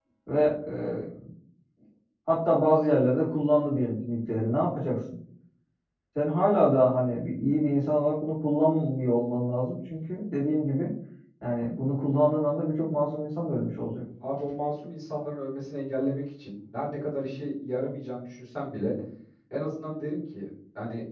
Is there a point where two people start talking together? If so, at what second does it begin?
none

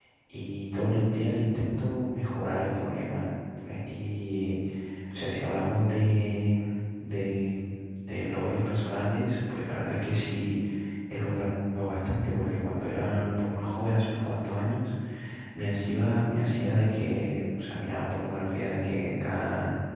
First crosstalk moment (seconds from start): none

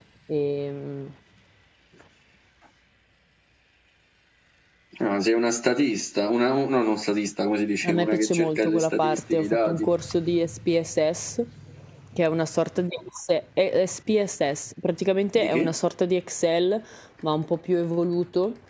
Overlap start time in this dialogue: 8 s

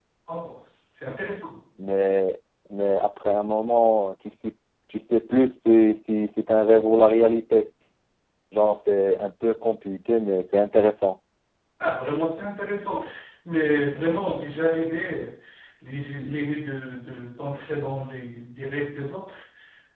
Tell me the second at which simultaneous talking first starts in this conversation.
none

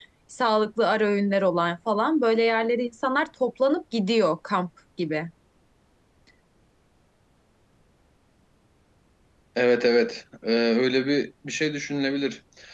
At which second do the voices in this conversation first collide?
none

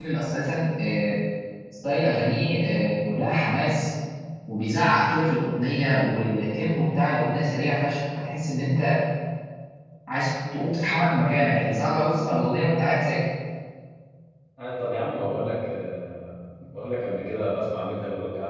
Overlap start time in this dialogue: none

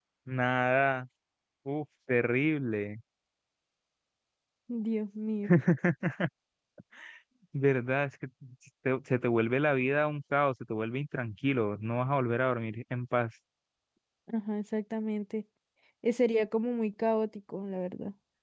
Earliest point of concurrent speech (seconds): none

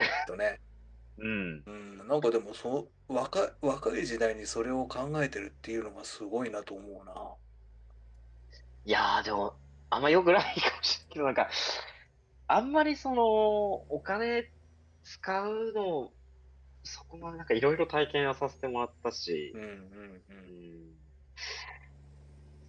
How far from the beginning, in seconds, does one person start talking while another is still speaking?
none

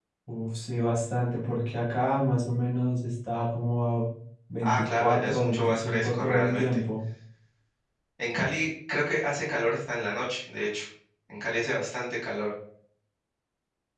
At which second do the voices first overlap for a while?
5 s

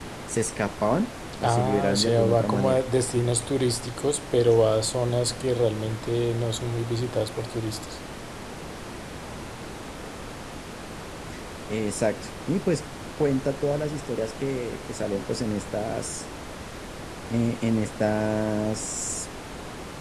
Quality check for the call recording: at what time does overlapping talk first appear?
1 s

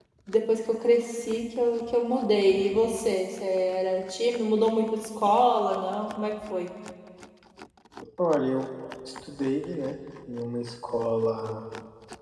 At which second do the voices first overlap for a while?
none

